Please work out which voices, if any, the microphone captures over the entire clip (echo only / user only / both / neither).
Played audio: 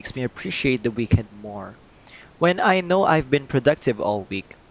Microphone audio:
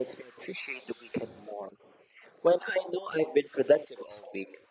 echo only